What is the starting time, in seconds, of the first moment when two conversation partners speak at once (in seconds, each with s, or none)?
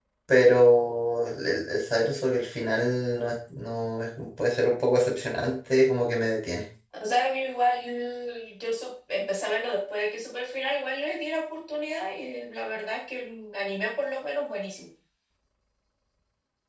none